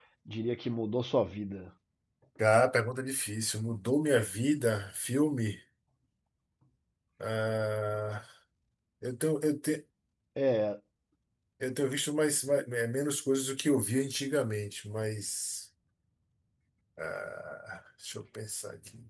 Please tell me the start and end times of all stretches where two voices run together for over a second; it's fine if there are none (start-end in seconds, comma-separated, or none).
none